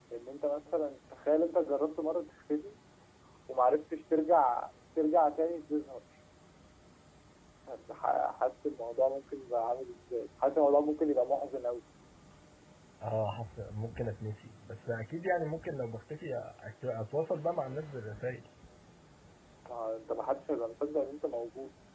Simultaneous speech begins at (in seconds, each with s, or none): none